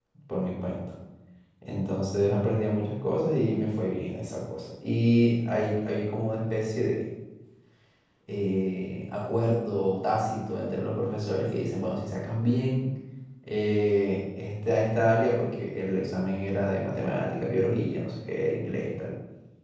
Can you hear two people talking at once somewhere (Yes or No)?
No